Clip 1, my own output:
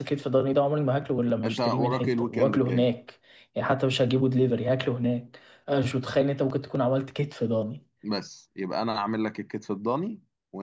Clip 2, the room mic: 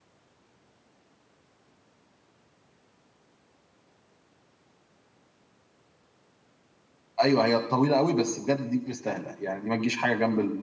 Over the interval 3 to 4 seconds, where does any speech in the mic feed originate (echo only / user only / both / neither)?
neither